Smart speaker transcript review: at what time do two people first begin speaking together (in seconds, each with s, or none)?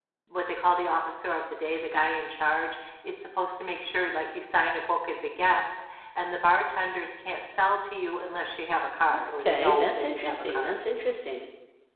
9.4 s